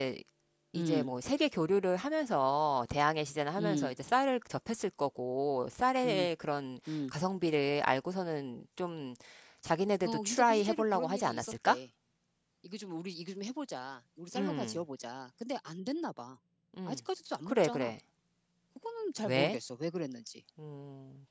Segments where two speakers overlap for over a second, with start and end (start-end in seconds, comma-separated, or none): 10.1-11.8